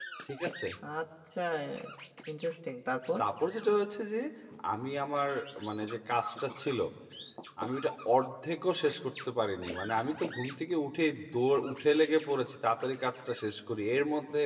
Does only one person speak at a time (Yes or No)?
Yes